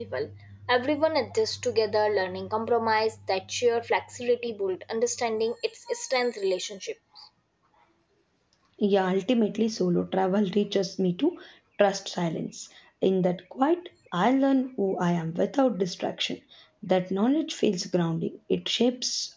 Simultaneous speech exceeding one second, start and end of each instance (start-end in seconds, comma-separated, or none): none